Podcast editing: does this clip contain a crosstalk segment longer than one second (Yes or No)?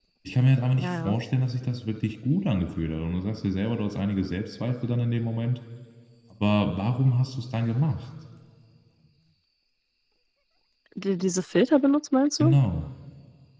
No